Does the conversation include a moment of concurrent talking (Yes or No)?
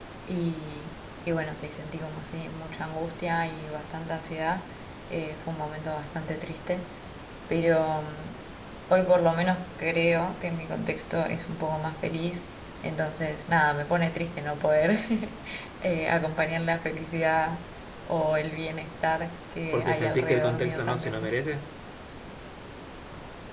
Yes